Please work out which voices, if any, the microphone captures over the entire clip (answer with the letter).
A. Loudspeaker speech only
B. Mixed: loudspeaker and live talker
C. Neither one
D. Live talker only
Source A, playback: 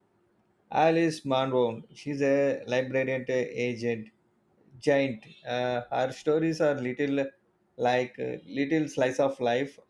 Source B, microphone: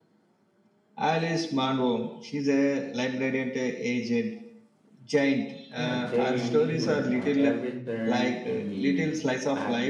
B